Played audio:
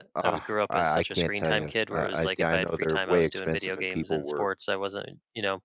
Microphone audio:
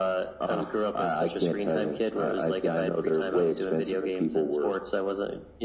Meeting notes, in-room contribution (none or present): none